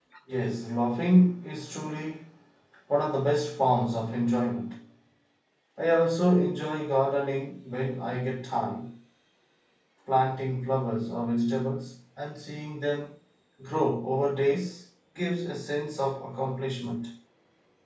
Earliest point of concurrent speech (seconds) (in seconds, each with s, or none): none